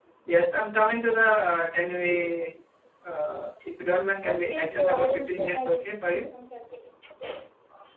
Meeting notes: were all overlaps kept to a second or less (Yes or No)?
No